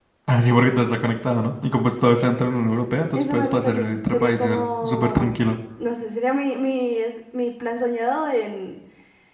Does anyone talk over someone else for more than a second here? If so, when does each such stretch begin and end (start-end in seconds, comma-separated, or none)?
3.1-5.4